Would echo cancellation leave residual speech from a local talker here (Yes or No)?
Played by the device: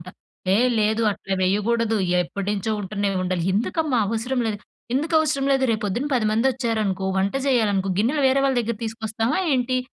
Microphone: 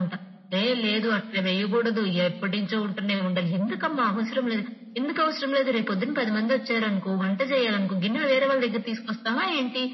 No